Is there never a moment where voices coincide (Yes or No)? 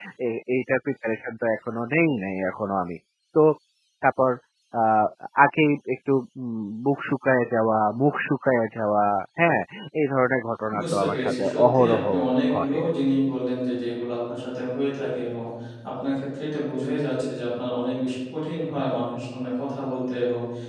No